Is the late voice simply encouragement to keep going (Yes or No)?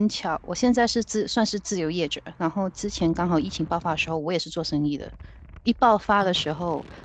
Yes